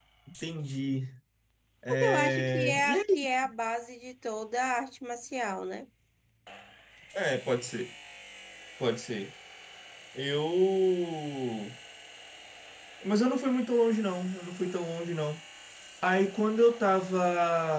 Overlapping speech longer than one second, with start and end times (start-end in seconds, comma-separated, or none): 1.9-3.2